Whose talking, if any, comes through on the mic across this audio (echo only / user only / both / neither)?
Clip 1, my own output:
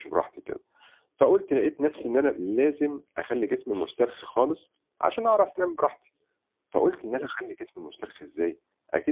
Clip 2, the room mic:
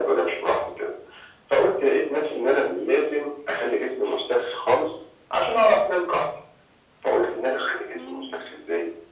both